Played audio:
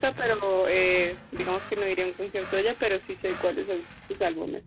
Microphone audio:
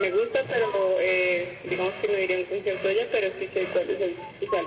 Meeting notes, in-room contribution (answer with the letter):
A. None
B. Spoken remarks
A